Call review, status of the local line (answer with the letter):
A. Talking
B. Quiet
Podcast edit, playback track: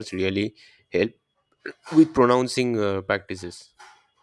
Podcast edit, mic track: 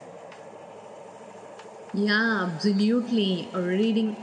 A